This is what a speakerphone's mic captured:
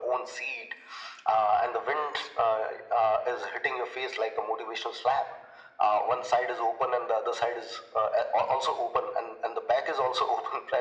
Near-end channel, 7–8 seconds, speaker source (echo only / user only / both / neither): echo only